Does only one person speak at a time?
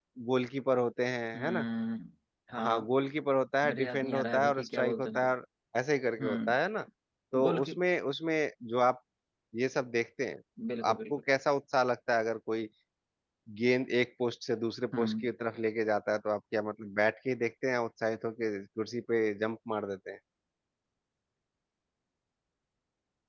No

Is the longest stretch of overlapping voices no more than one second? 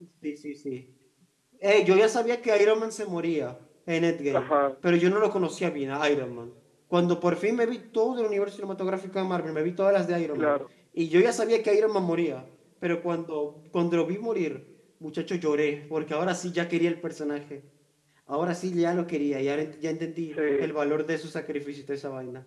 Yes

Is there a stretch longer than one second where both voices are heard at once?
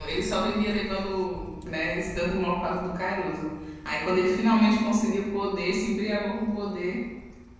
No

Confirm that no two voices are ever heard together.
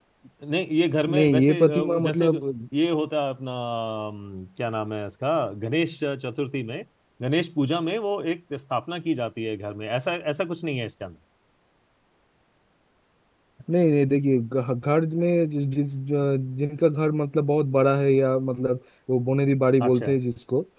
No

